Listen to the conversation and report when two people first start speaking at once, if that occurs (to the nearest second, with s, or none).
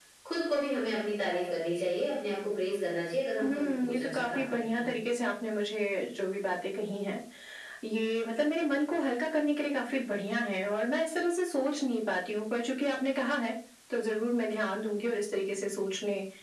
3 s